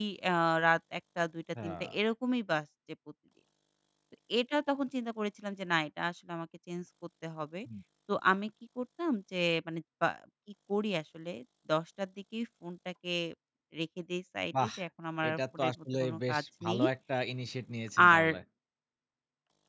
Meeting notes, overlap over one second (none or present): present